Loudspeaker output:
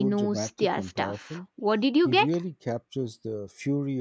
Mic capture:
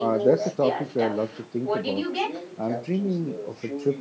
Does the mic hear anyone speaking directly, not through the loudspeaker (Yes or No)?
Yes